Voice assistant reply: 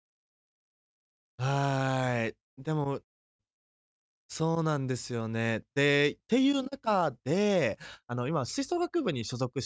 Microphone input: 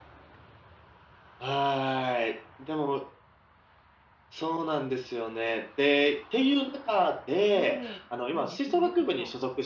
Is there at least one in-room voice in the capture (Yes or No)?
Yes